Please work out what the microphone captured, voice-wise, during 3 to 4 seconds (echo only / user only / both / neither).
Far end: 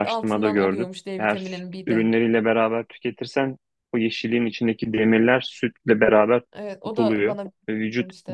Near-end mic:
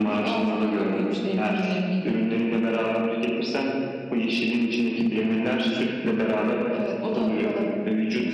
echo only